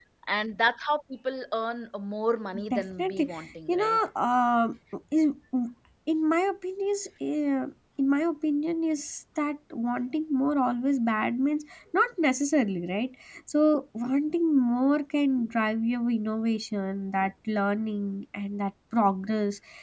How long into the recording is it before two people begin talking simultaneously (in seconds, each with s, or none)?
2.5 s